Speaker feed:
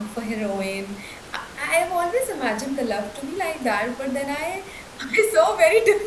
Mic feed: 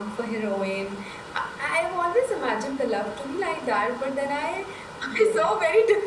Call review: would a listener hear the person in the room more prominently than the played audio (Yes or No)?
No